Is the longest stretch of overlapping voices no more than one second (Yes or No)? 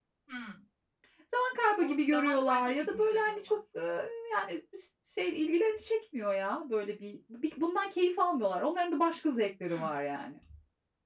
No